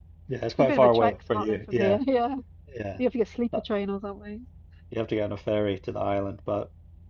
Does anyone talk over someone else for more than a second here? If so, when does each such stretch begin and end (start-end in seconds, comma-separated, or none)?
0.6-2.0